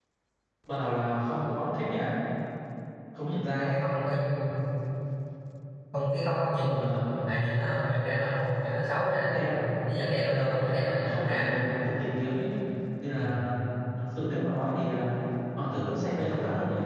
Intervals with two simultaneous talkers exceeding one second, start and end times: 10.1-11.5

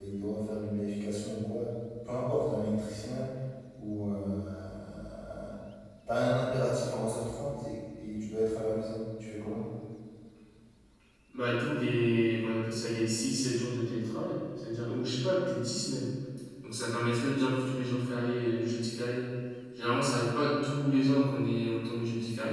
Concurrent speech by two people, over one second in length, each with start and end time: none

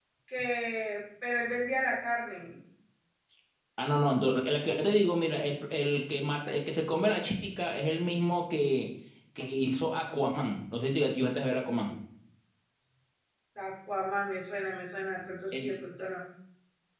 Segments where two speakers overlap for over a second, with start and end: none

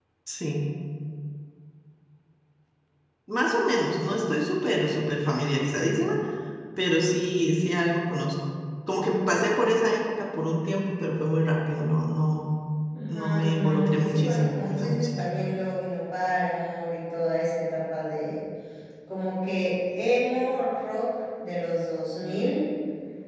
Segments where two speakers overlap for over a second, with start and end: 13.0-15.1

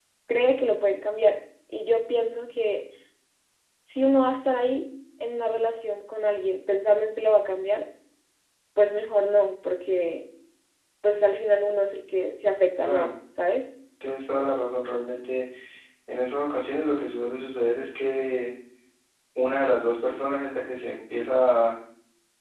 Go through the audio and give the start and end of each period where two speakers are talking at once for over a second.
none

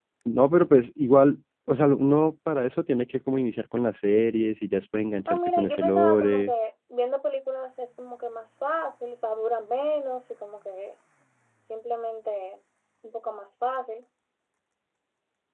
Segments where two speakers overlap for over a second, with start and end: 5.3-6.5

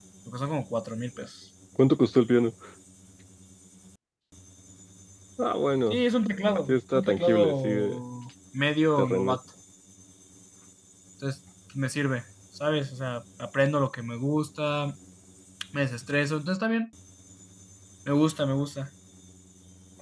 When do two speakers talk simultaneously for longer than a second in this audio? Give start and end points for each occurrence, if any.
6.7-8.0

